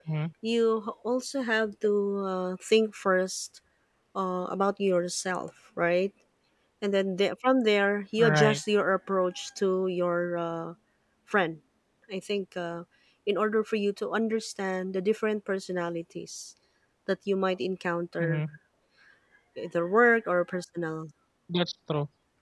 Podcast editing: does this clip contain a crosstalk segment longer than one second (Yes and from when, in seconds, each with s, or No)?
No